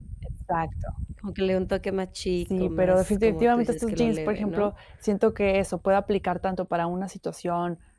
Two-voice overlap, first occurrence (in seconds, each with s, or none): 2.5 s